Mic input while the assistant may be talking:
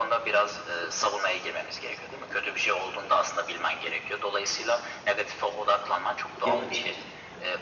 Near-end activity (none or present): present